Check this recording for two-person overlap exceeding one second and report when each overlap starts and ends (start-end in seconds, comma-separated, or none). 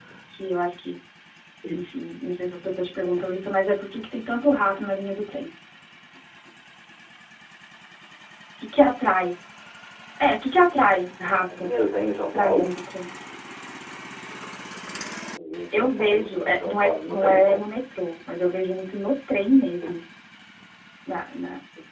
15.7-17.6